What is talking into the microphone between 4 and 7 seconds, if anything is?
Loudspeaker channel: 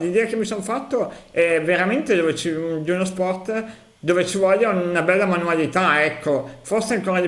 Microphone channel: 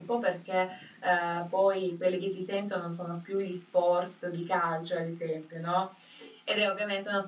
user only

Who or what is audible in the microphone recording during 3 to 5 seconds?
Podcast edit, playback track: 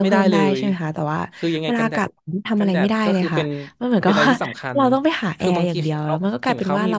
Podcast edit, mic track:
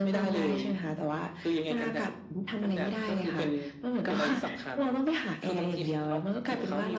echo only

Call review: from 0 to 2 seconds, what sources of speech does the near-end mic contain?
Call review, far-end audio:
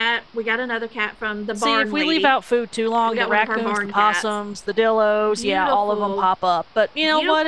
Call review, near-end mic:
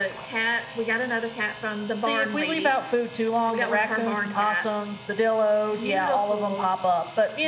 echo only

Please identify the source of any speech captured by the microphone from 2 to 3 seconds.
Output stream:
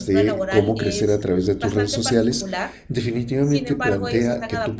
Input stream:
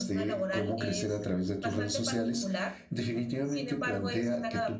echo only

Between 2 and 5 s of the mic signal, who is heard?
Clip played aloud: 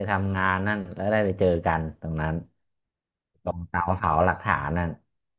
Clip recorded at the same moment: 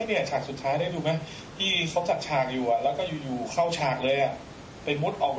user only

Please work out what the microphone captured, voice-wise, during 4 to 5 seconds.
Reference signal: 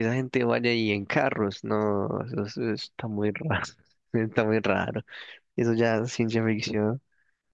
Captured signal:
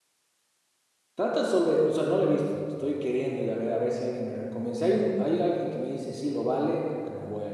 user only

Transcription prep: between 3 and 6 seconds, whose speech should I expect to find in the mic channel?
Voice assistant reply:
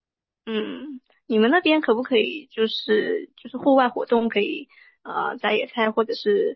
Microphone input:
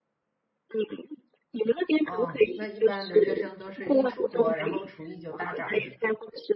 both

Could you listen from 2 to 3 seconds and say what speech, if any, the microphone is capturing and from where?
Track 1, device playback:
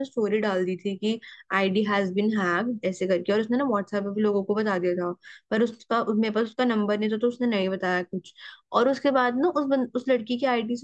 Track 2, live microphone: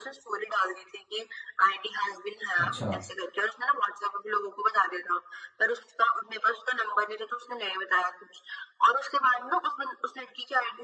both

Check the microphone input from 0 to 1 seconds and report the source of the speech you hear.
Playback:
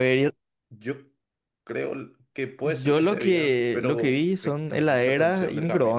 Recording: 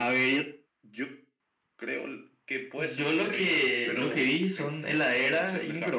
echo only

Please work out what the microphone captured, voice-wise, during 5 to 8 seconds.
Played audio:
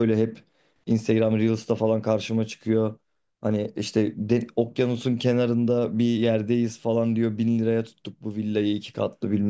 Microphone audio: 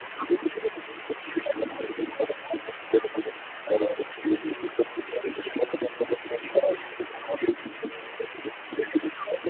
echo only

